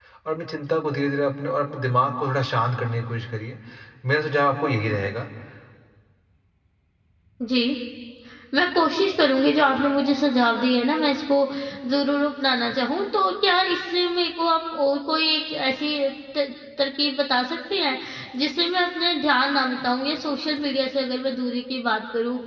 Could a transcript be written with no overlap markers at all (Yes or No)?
Yes